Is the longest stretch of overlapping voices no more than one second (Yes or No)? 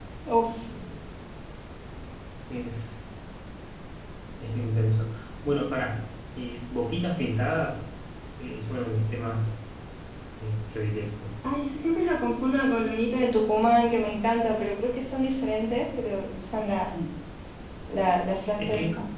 Yes